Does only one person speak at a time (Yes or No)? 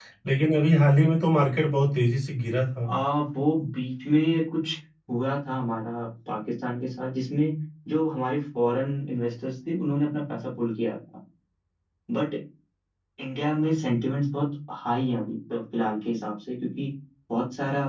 Yes